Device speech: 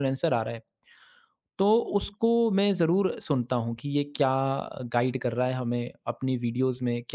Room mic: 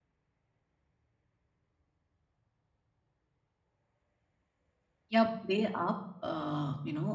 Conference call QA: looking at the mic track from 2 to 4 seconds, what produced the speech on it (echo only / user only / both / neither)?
neither